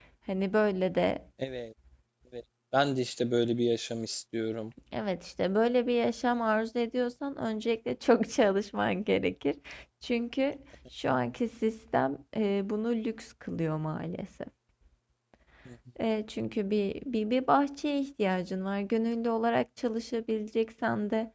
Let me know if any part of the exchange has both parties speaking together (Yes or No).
No